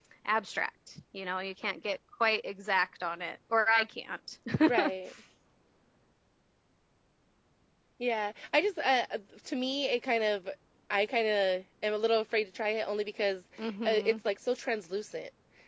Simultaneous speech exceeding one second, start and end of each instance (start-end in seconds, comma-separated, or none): none